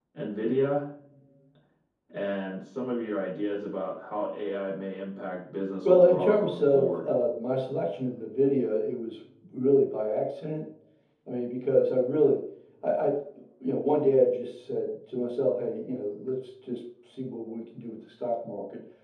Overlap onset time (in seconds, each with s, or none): 5.8 s